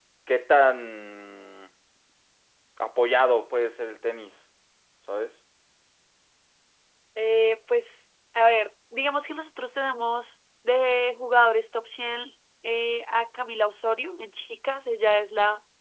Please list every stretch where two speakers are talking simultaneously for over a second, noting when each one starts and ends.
none

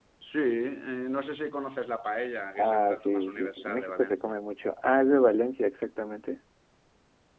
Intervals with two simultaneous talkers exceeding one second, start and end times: 2.6-4.1

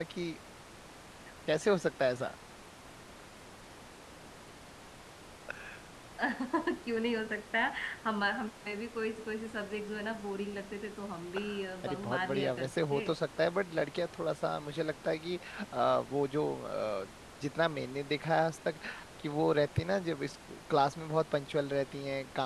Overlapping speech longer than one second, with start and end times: 11.8-13.0

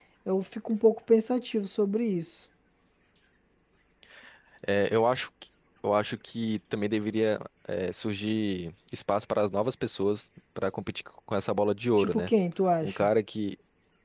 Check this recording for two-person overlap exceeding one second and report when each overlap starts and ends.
none

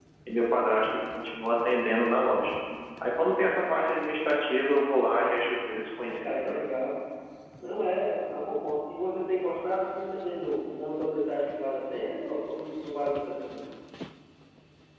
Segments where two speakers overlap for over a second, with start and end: none

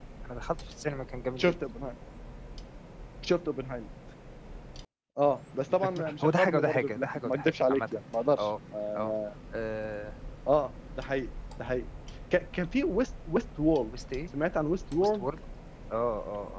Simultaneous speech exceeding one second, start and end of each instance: 5.7-8.0

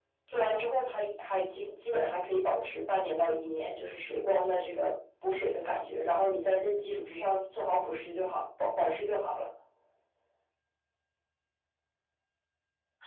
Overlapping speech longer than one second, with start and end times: none

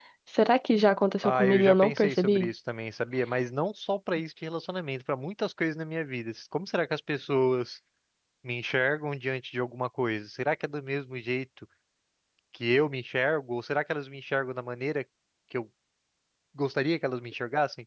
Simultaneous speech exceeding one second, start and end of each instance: 1.2-2.5

